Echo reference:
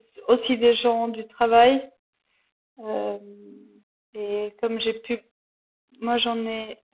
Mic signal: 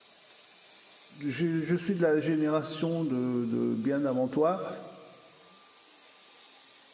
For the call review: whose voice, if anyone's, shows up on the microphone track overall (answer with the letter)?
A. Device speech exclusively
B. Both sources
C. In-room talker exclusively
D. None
C